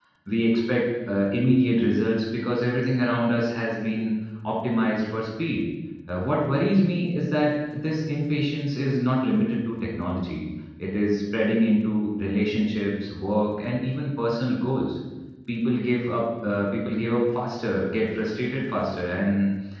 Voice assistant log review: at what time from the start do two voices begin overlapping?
none

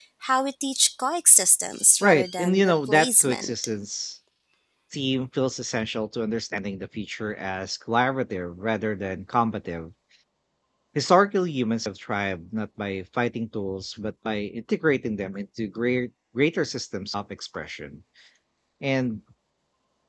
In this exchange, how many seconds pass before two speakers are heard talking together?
2.0 s

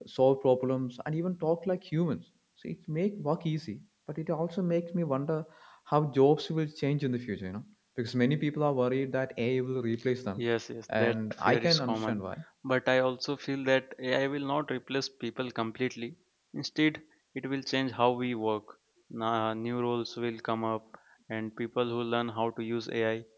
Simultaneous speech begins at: 10.9 s

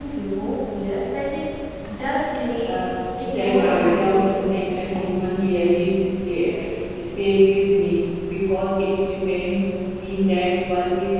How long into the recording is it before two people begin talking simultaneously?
3.2 s

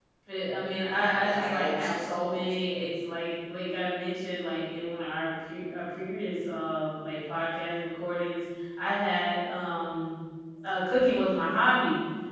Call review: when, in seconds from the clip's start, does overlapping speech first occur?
0.9 s

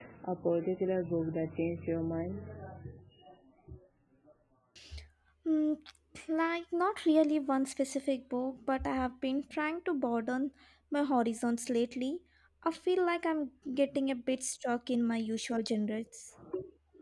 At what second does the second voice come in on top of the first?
none

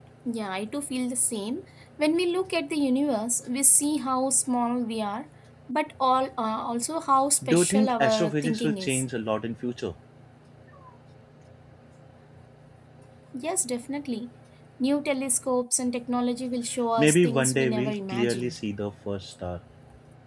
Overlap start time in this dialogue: 7.4 s

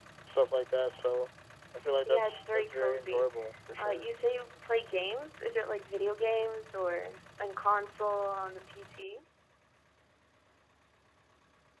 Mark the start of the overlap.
2.0 s

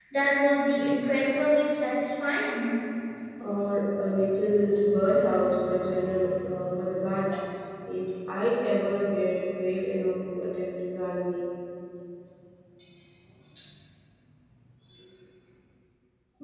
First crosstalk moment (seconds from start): none

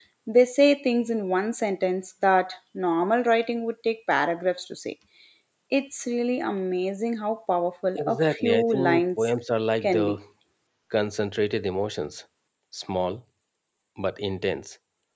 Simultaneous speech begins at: 8.0 s

